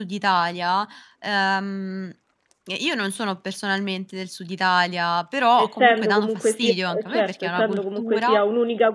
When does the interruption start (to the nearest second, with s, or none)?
6 s